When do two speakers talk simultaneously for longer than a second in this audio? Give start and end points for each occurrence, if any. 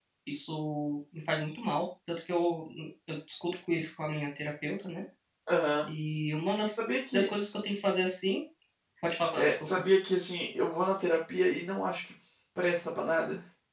none

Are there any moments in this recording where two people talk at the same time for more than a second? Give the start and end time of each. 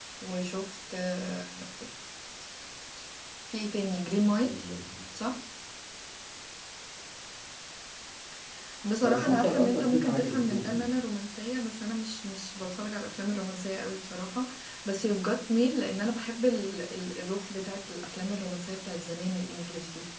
9.0-10.9

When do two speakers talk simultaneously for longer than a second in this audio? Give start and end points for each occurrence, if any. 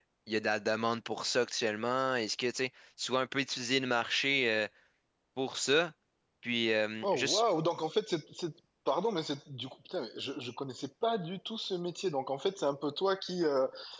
none

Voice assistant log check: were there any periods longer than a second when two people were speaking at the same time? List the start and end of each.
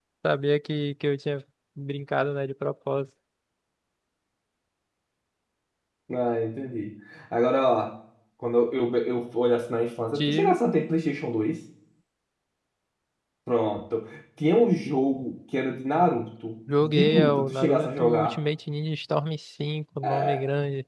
16.8-18.4

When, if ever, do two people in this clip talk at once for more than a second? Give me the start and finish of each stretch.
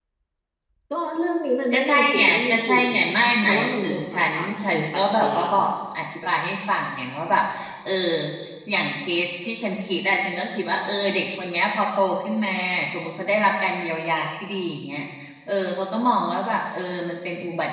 1.7-3.0, 3.4-5.4

